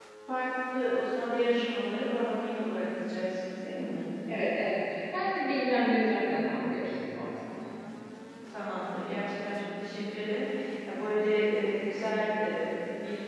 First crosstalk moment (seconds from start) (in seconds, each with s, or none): none